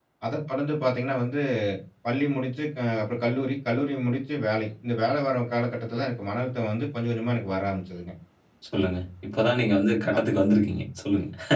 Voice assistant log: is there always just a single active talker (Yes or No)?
Yes